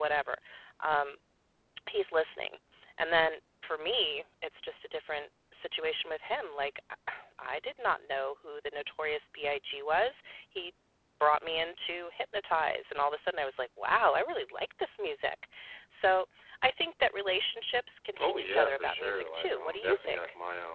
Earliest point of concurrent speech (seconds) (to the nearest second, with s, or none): 18 s